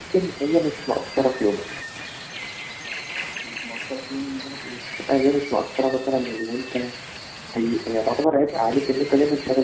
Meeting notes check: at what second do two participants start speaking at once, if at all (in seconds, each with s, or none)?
none